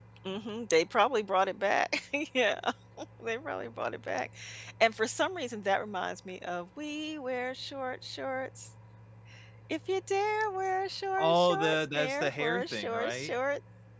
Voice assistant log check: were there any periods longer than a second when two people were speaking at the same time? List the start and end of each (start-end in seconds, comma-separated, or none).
11.2-13.3